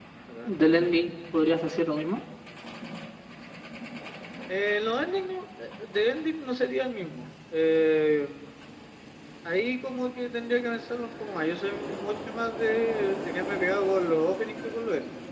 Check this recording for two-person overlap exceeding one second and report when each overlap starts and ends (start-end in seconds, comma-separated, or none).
none